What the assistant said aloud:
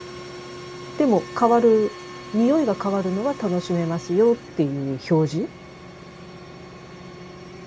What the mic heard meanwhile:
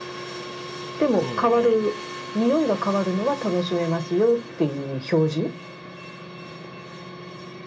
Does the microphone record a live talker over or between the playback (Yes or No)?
Yes